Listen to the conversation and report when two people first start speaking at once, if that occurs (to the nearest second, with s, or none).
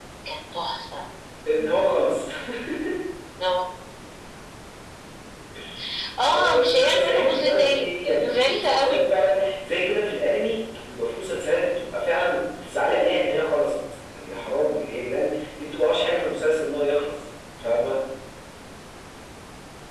6 s